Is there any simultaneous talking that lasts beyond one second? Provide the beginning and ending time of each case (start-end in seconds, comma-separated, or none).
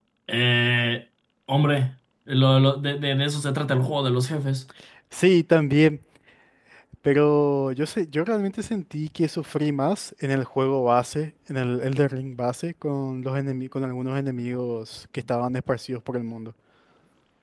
none